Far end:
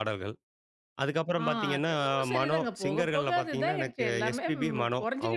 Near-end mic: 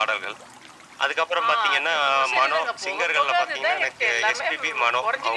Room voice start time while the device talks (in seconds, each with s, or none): none